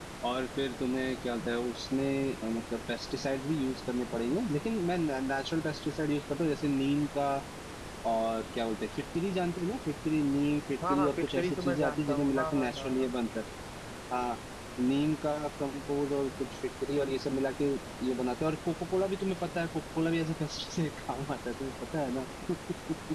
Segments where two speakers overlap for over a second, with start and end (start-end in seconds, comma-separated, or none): 10.9-13.1